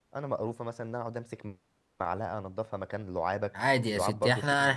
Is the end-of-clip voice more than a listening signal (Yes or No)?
Yes